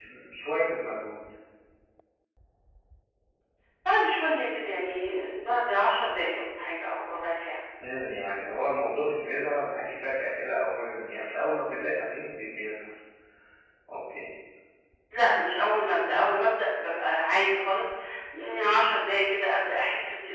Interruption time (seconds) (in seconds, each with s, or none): none